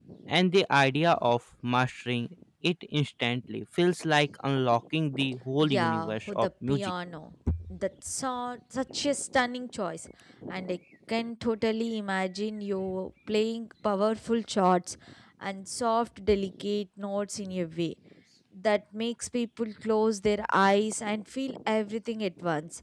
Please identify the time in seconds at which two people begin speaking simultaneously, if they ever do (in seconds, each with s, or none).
5.6 s